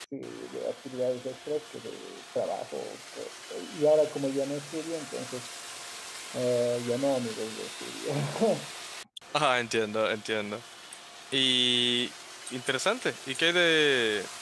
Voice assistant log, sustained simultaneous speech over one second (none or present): none